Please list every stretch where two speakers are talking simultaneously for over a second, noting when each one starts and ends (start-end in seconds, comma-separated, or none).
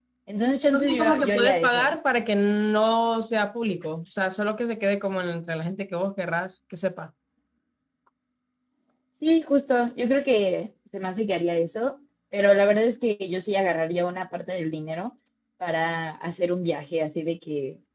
0.7-1.9